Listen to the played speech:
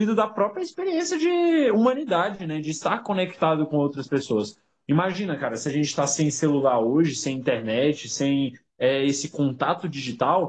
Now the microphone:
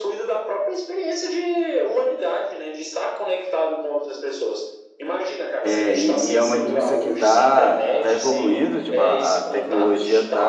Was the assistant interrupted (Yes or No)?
Yes